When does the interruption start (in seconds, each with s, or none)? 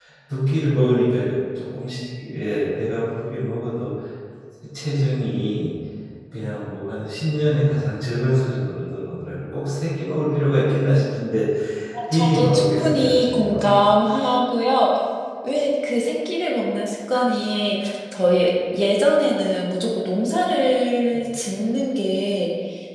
12.1 s